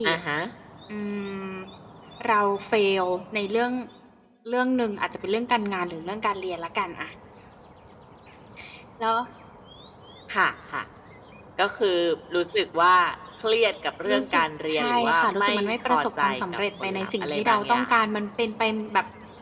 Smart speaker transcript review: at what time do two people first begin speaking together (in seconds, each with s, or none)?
14.1 s